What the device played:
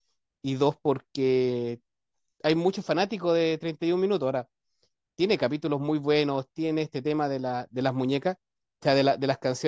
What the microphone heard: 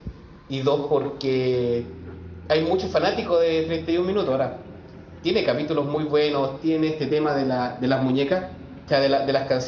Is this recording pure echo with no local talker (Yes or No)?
Yes